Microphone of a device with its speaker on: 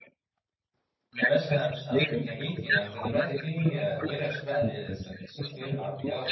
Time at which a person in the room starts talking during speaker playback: 1.2 s

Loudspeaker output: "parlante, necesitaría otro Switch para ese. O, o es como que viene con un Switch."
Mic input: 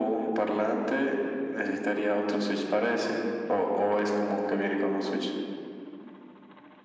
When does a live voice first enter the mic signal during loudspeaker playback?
none

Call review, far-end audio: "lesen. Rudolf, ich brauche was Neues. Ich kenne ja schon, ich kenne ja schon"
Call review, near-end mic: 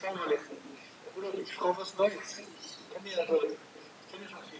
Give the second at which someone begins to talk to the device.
none

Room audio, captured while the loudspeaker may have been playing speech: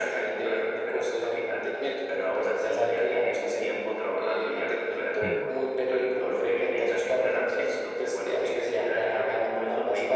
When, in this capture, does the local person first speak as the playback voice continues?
5.2 s

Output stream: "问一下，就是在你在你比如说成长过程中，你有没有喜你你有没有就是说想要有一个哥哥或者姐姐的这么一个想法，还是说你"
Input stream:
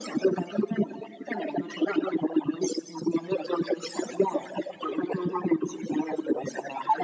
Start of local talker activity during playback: none

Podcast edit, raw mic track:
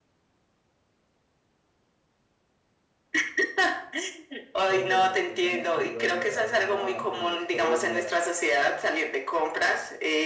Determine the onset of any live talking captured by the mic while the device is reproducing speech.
4.6 s

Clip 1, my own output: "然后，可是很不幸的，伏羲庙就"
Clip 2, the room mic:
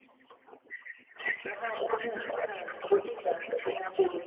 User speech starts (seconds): none

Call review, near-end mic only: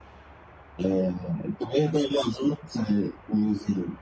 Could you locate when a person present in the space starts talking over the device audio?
none

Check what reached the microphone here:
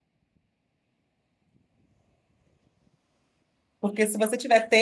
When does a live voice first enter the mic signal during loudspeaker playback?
3.8 s

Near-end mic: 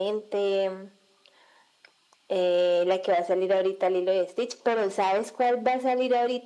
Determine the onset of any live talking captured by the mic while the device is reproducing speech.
none

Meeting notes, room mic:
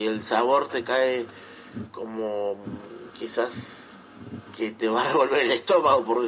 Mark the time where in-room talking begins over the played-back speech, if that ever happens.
none

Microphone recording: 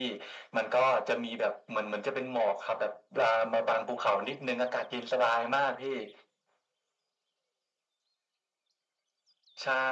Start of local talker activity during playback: none

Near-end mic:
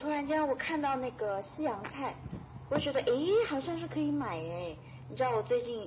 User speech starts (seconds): none

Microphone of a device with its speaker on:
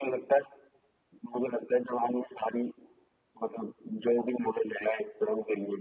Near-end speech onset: none

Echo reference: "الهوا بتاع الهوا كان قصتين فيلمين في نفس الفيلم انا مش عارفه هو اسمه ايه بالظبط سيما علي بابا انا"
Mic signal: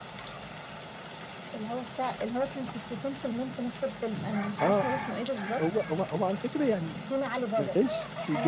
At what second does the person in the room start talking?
4.6 s

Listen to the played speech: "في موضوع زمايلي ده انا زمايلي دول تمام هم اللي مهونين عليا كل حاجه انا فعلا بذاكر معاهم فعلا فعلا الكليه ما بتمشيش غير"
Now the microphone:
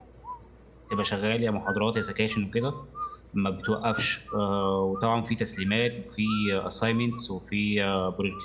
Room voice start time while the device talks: 0.9 s

